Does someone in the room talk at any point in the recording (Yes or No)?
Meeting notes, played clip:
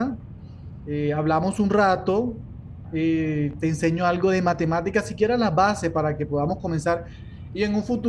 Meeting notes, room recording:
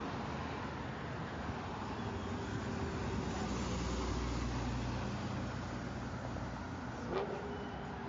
No